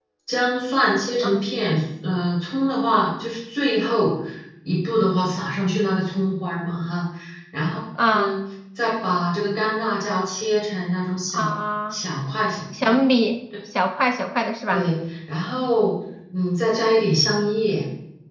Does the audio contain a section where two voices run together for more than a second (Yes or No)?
No